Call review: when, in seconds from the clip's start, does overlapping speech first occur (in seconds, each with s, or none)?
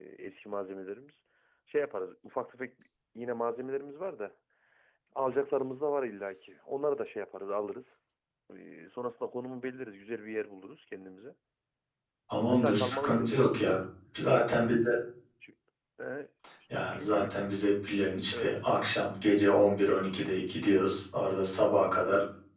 12.5 s